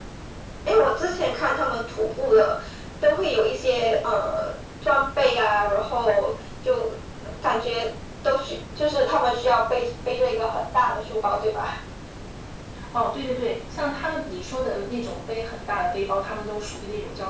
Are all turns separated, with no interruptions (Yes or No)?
Yes